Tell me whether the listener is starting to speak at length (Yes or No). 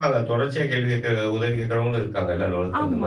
Yes